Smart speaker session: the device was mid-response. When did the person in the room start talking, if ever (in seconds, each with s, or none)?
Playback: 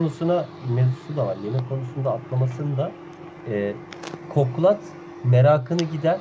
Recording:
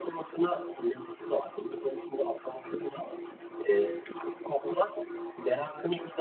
none